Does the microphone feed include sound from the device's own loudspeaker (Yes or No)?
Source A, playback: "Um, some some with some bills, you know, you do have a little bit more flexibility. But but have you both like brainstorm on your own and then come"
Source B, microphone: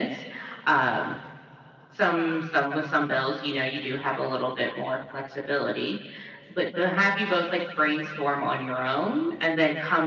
Yes